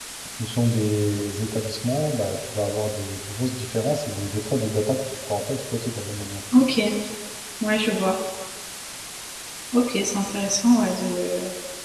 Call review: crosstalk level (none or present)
none